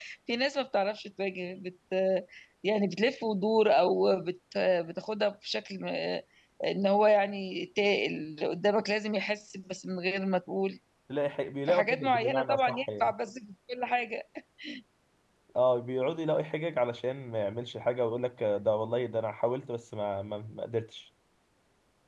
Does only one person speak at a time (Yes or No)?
No